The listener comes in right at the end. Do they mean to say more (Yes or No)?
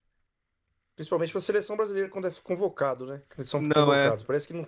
No